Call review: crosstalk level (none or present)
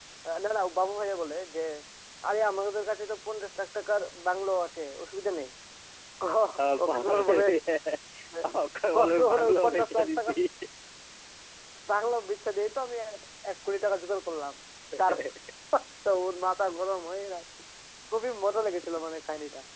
present